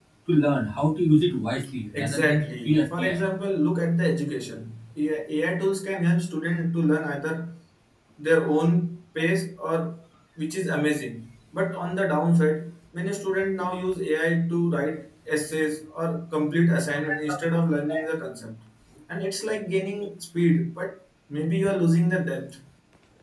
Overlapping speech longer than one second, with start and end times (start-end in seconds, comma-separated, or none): 1.9-3.2